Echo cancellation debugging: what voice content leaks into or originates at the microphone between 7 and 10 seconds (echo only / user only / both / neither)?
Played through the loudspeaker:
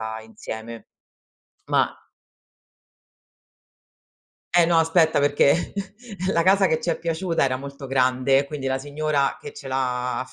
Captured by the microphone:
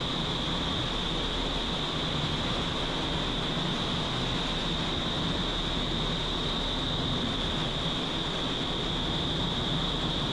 neither